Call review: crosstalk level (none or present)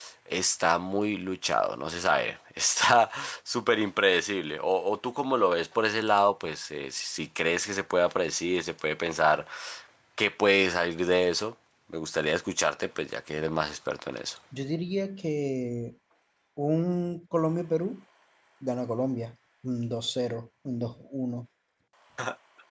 none